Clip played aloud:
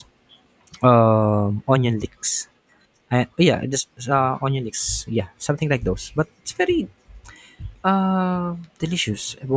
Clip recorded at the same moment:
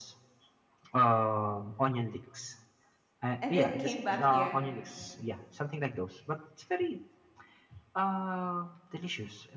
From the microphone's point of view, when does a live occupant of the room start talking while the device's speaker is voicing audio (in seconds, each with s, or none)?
3.4 s